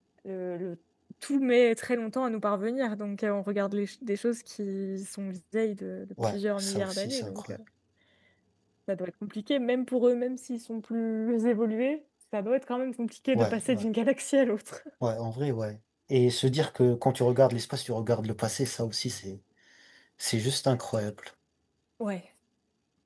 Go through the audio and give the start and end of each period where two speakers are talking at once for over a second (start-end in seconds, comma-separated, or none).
6.2-7.6